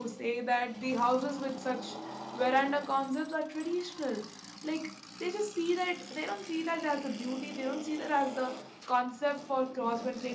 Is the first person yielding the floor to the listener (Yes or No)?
No